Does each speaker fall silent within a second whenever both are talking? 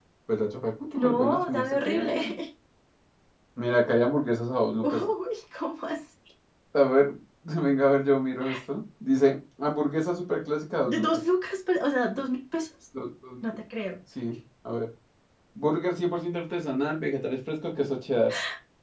No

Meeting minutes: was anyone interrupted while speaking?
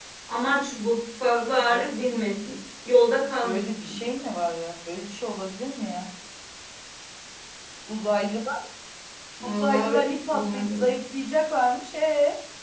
Yes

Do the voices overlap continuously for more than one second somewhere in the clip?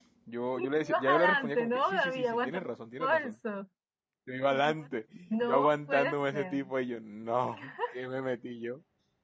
Yes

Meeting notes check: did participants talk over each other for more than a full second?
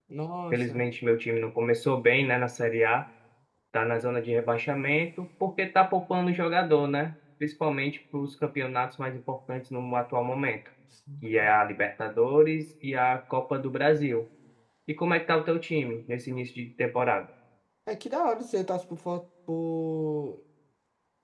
No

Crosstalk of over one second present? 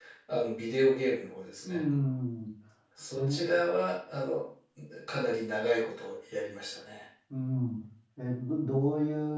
No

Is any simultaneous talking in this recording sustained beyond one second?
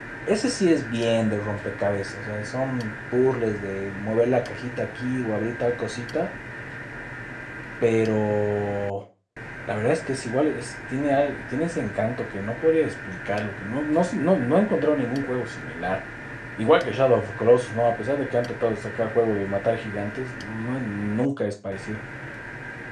No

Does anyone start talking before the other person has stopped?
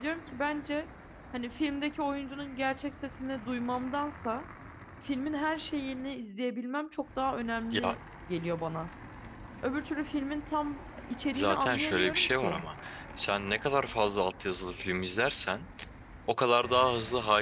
Yes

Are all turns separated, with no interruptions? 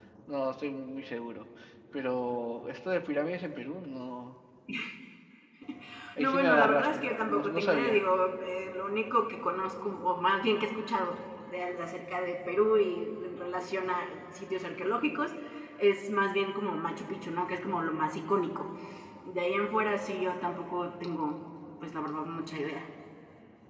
No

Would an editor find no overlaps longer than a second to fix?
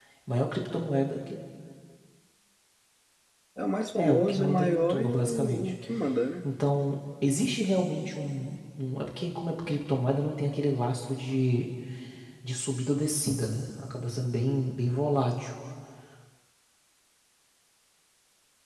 No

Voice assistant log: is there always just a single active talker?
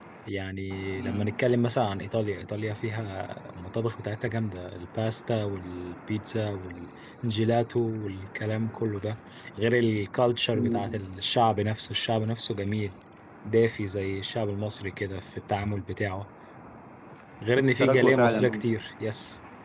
No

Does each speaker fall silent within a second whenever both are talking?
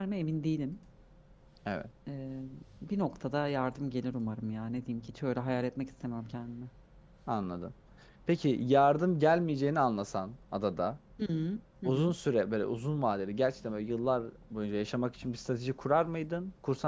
Yes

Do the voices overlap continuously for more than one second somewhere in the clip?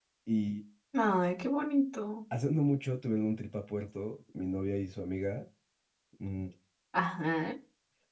No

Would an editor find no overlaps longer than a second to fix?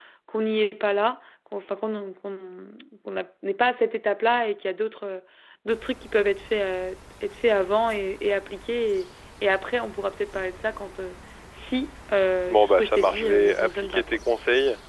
No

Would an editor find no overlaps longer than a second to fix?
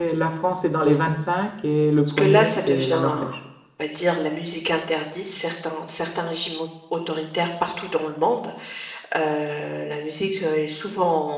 No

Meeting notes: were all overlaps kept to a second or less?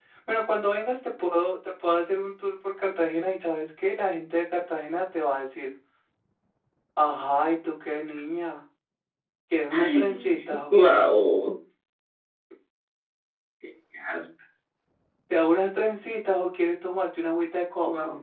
No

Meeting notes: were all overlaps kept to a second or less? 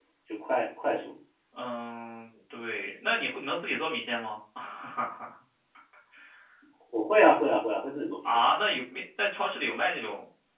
Yes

